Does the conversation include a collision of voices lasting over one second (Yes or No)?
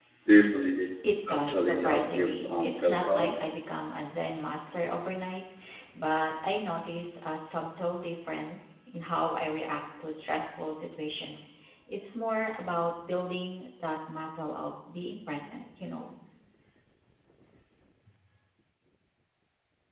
Yes